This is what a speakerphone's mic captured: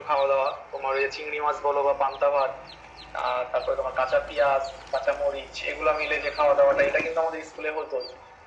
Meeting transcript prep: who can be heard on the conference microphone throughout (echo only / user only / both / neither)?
echo only